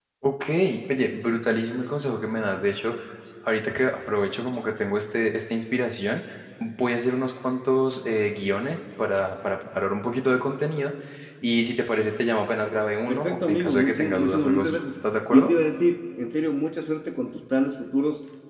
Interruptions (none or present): present